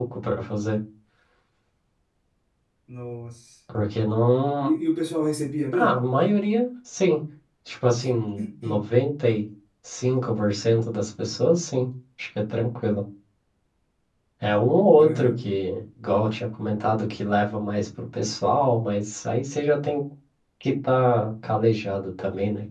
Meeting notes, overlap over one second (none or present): none